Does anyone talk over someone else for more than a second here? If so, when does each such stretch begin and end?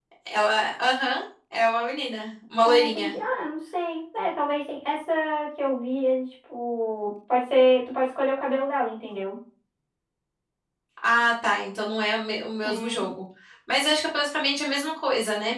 none

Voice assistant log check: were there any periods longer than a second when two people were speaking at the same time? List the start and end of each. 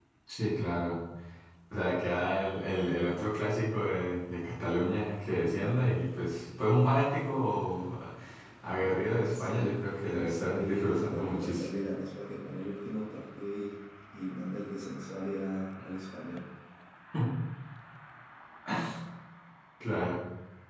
9.3-11.7

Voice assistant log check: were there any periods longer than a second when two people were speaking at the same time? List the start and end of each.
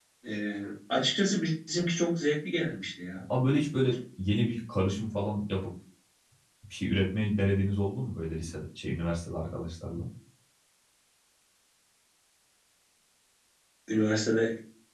none

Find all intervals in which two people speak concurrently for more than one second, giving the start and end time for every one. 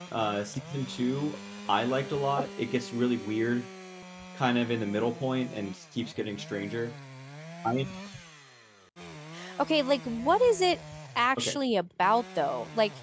none

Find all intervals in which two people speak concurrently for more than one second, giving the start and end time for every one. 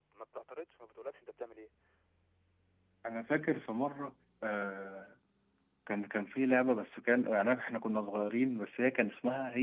none

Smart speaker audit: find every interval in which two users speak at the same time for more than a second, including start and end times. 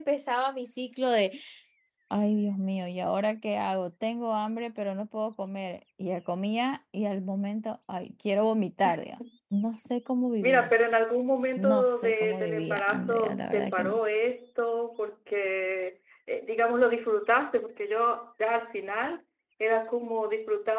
11.6-13.9

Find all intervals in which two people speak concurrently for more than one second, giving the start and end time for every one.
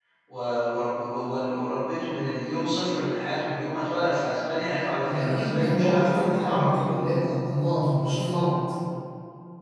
5.0-6.7

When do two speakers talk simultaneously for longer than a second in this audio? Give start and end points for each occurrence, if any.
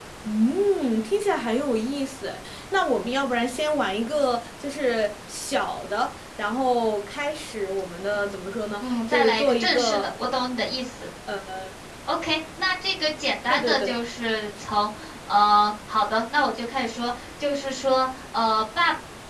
8.8-10.1

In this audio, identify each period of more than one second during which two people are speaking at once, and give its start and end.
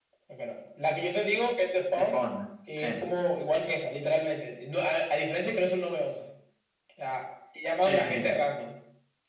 none

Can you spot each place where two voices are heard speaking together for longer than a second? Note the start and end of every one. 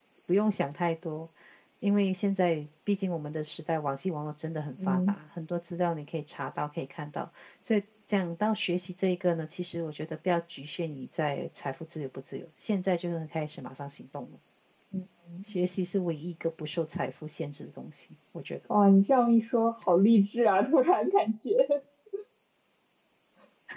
none

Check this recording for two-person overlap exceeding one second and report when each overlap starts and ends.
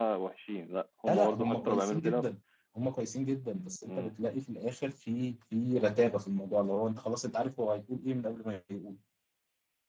1.1-2.3

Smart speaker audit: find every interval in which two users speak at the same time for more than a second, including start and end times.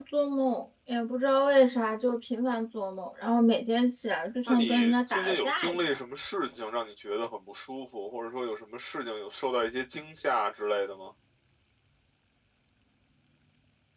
4.5-6.0

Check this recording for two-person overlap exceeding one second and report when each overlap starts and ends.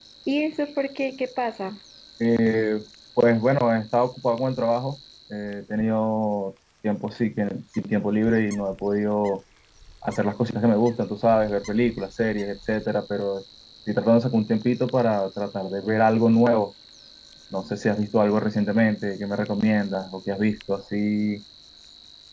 none

